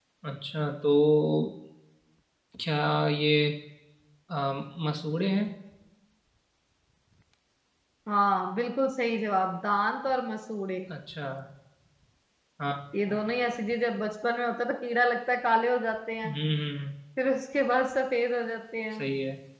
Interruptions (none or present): none